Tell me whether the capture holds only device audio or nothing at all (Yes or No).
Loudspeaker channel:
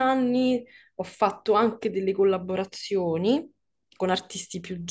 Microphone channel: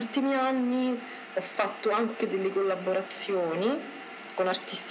Yes